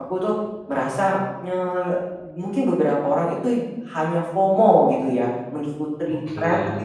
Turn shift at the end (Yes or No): No